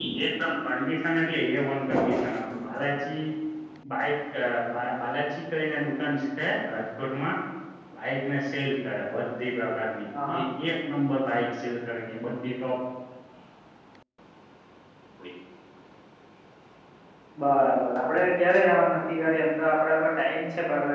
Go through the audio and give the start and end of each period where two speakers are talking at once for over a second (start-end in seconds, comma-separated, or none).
none